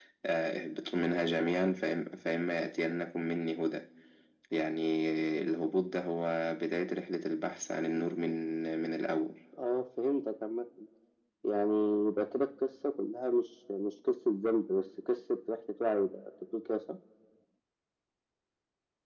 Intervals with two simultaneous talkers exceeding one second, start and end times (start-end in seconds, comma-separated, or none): none